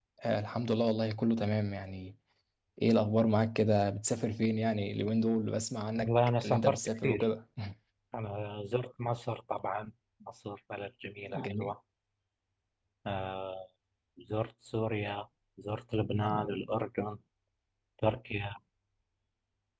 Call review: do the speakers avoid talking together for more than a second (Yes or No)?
No